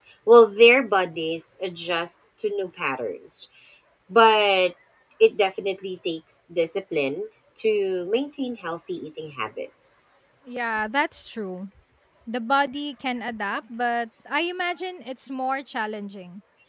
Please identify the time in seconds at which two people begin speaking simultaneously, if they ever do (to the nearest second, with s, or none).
none